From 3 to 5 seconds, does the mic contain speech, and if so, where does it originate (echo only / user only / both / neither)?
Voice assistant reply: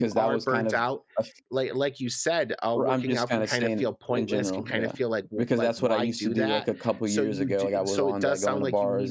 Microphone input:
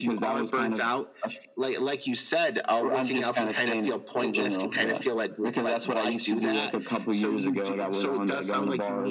echo only